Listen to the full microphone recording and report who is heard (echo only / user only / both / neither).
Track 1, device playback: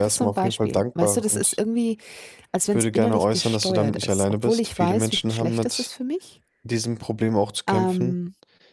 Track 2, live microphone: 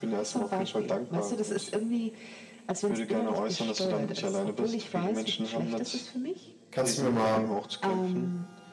both